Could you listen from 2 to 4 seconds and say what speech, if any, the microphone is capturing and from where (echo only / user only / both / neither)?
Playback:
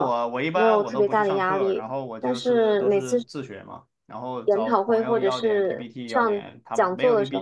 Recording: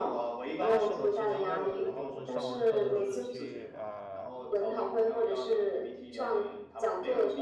both